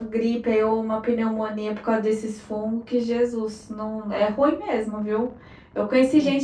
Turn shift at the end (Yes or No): No